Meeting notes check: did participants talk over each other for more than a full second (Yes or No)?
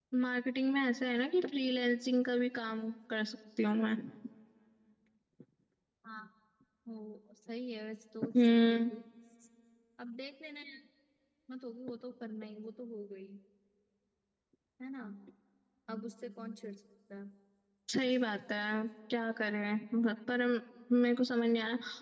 No